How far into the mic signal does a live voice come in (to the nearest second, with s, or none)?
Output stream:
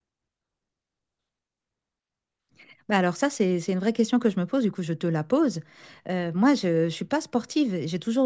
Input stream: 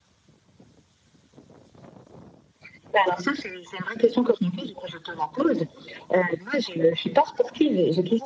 none